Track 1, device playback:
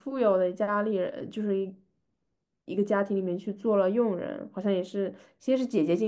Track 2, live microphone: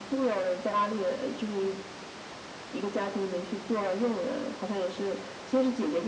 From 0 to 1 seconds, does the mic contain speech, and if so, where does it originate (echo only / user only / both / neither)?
echo only